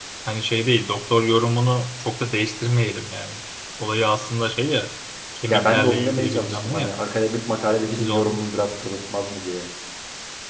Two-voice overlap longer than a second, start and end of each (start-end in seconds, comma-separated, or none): 5.5-6.9